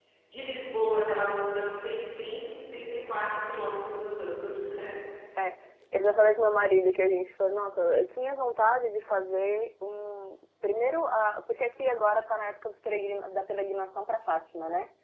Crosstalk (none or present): none